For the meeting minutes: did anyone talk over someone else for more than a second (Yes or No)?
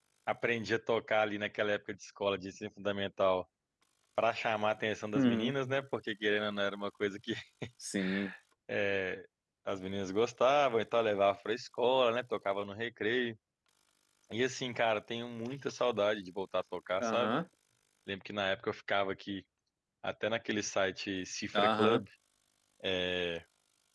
No